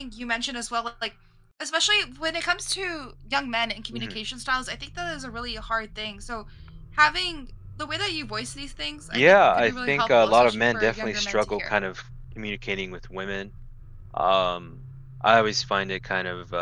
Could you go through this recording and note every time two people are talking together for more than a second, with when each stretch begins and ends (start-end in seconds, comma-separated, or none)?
9.1-11.7